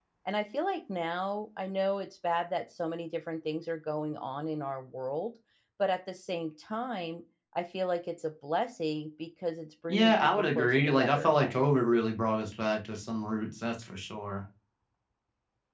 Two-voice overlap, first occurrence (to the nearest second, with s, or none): 10 s